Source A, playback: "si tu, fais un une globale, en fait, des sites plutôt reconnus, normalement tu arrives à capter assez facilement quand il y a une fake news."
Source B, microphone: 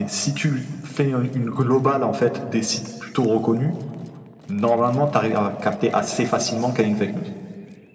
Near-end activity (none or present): none